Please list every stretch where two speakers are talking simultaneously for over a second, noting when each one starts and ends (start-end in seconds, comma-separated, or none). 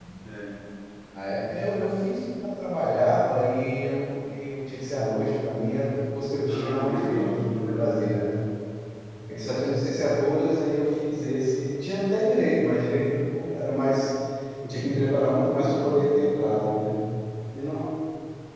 6.5-8.0